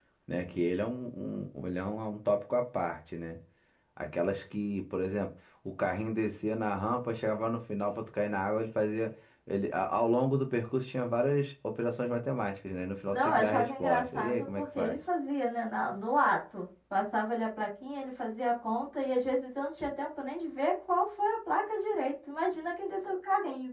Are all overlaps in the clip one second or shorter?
No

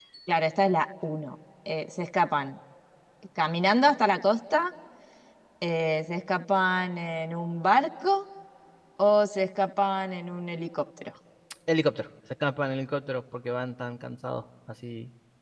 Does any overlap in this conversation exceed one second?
No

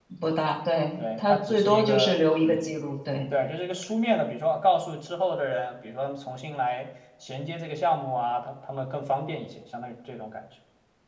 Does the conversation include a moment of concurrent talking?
Yes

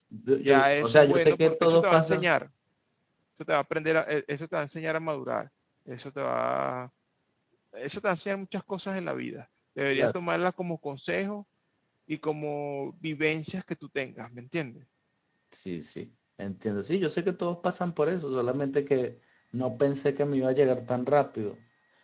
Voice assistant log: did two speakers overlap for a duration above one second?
Yes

